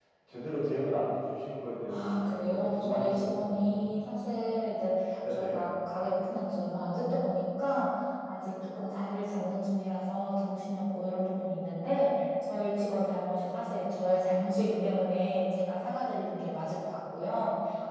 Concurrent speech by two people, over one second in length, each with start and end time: 1.9-3.9

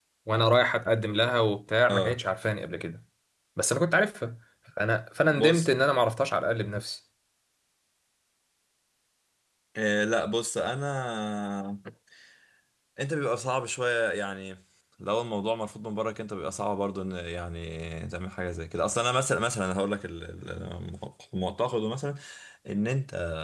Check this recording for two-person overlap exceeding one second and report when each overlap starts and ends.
none

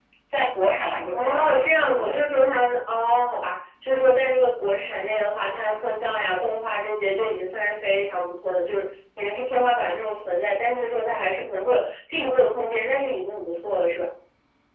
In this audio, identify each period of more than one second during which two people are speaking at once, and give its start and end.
1.1-2.5

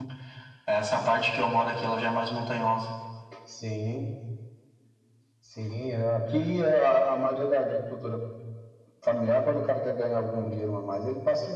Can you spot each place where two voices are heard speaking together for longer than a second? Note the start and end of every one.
none

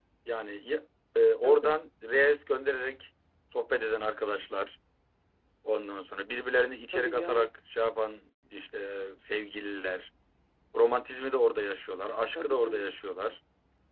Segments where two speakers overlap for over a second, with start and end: none

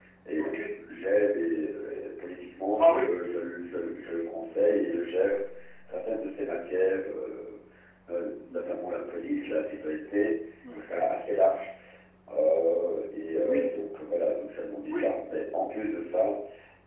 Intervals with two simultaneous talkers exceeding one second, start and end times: none

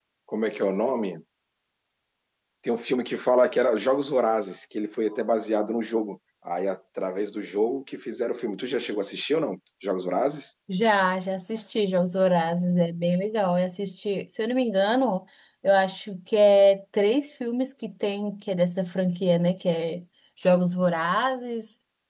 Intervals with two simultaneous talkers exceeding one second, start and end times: none

